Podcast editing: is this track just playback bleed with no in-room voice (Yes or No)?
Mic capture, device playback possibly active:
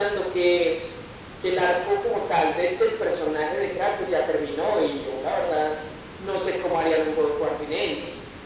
Yes